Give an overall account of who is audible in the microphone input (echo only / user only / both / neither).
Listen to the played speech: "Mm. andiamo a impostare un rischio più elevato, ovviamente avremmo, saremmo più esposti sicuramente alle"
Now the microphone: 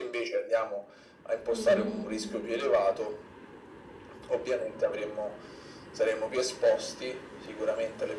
both